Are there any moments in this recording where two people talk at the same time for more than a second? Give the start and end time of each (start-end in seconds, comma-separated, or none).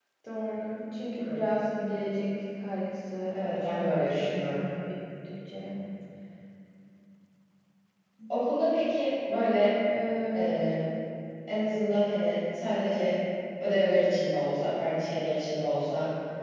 3.3-4.6